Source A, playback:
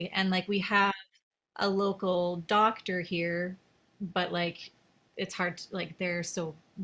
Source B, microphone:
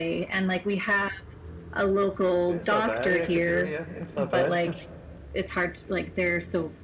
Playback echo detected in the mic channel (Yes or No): Yes